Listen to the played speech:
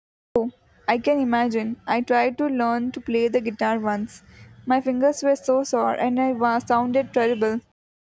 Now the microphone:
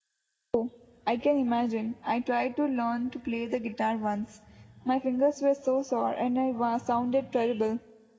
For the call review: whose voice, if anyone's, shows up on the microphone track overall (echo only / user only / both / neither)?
echo only